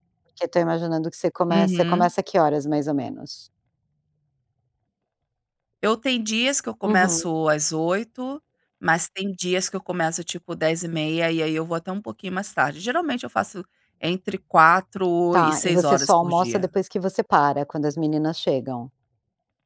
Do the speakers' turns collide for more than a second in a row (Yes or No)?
Yes